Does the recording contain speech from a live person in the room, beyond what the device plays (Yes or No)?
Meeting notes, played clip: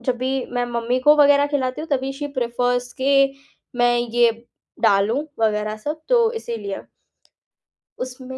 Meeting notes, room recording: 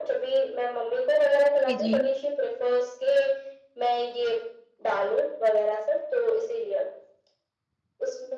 Yes